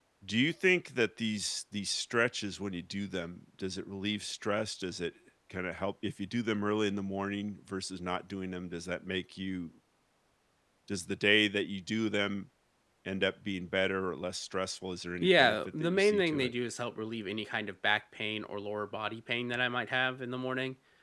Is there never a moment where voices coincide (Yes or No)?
No